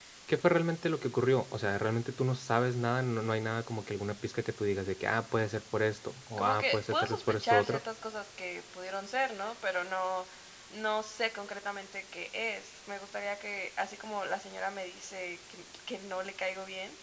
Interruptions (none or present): present